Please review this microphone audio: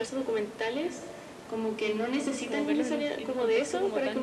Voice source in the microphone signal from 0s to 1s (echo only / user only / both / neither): echo only